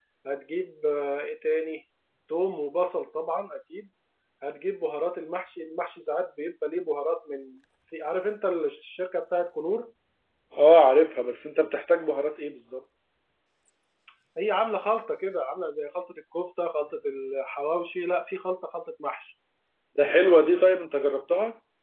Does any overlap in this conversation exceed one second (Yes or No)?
No